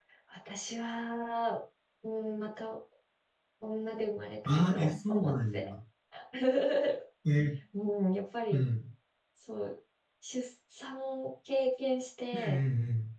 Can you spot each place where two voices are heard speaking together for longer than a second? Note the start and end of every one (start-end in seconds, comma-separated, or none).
4.5-5.7